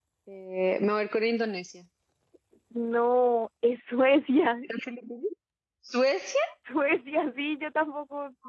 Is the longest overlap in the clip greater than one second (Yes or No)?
No